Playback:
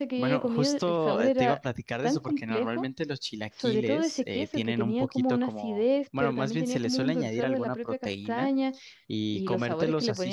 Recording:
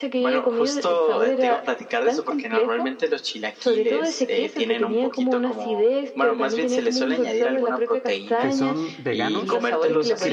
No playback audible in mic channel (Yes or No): No